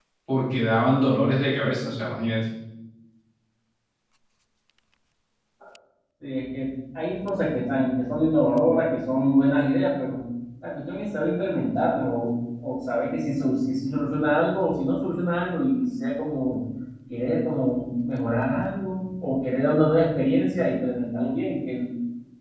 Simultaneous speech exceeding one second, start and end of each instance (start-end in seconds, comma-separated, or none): none